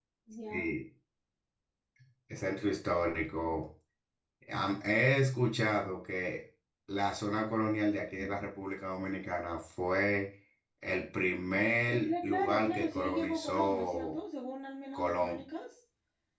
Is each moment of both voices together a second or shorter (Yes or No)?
No